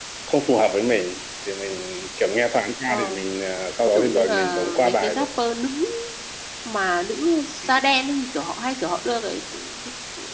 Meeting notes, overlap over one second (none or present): present